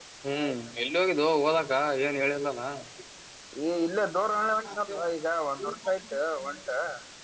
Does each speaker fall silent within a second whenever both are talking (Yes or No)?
Yes